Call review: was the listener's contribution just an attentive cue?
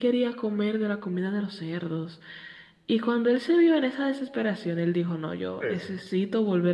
Yes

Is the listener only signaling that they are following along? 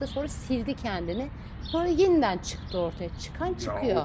No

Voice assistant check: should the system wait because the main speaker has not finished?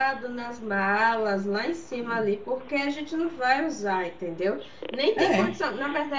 Yes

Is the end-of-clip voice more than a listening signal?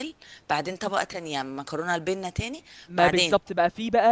Yes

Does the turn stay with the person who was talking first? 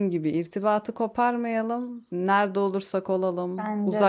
Yes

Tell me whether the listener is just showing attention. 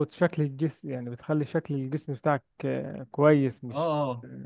Yes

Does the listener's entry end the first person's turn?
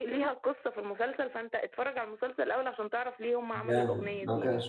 Yes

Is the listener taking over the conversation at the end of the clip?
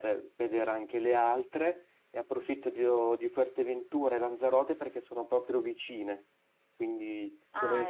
No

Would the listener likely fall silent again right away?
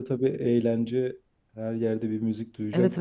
No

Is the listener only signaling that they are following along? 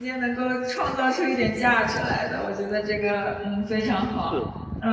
No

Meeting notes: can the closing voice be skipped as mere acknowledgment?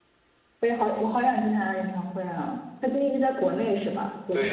No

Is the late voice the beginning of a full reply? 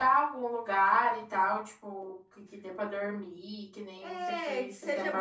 Yes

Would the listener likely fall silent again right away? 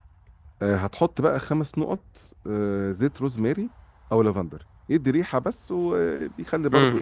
No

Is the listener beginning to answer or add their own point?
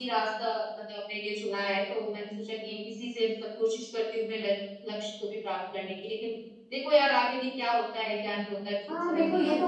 Yes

